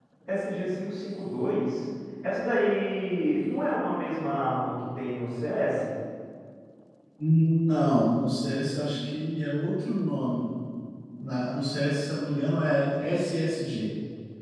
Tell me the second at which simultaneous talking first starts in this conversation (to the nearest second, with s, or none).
none